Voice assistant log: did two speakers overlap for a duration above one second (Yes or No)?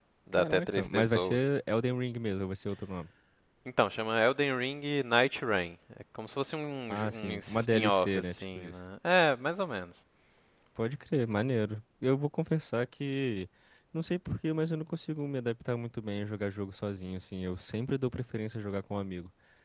Yes